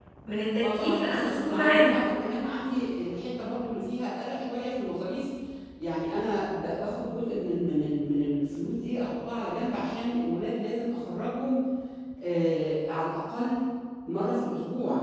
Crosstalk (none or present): present